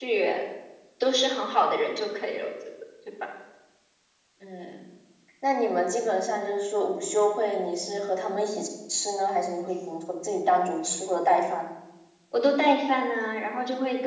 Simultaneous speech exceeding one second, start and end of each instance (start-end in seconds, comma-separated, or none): none